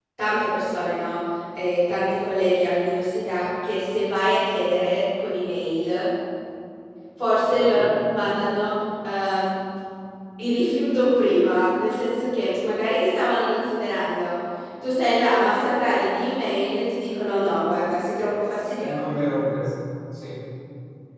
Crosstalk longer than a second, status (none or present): none